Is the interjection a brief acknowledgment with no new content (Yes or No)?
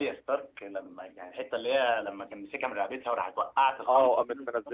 No